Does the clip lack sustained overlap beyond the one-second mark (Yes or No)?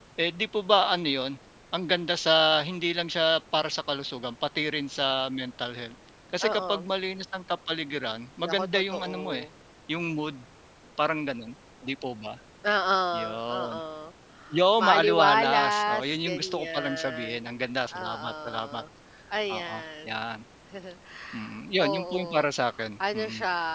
No